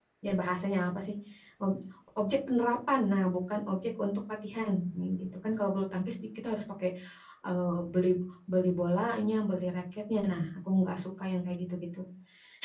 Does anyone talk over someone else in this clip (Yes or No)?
No